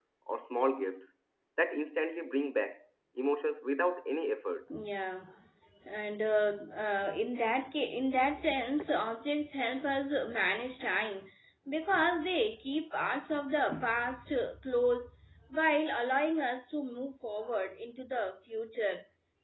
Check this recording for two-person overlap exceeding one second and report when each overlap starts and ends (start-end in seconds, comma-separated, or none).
none